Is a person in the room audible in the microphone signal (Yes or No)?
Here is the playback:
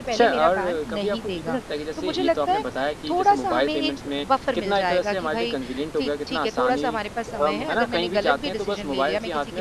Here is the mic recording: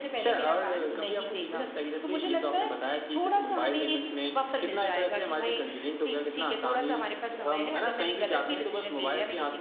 No